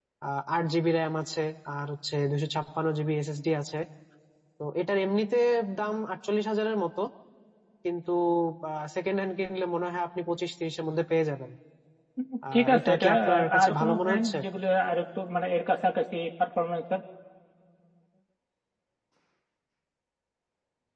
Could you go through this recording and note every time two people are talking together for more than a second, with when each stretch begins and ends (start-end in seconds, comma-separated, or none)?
12.5-14.4